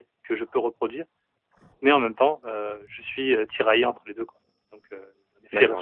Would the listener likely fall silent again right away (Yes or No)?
No